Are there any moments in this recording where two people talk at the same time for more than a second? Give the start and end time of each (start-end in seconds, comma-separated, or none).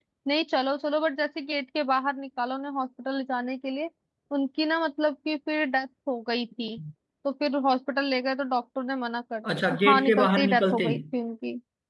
9.7-11.0